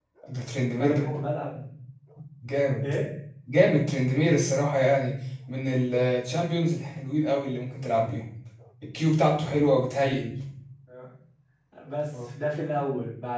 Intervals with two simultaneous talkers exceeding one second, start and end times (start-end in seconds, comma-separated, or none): none